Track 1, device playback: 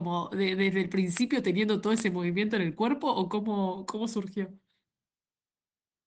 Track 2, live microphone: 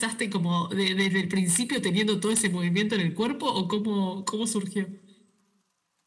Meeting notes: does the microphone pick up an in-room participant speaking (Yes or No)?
No